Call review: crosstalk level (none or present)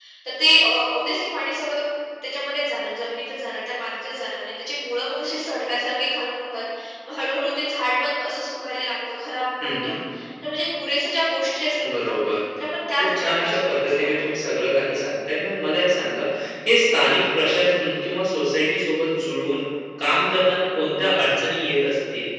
present